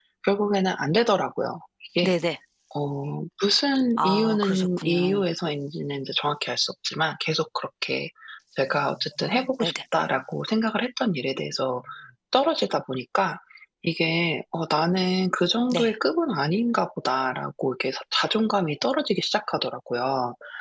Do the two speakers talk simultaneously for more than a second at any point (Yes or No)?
Yes